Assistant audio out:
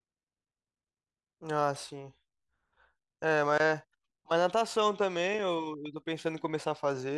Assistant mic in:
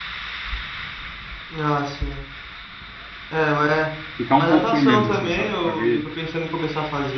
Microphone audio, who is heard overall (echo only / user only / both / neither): both